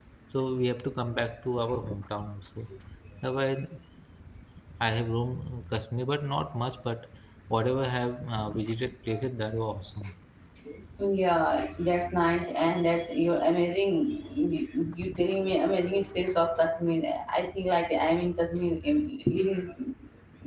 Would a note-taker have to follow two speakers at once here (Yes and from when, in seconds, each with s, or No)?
No